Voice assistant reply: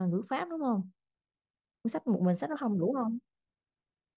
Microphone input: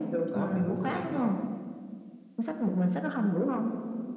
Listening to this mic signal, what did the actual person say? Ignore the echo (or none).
đó. mày mua cái quyển đó